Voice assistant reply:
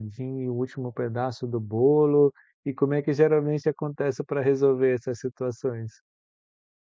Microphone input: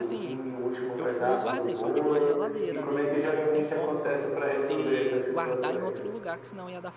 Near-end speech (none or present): present